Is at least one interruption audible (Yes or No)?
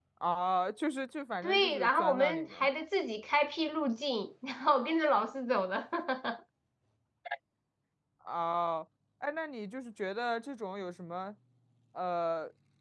Yes